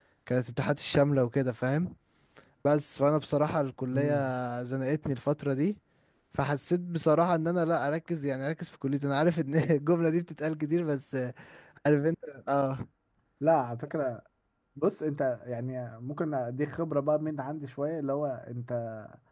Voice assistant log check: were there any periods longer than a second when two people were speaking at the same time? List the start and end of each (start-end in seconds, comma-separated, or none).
none